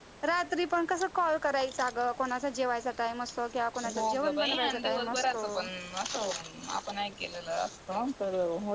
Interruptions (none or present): present